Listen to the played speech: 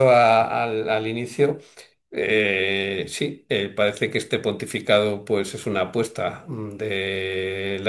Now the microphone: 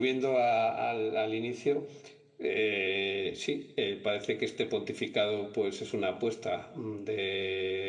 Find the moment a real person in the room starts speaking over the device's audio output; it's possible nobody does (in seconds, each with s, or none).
none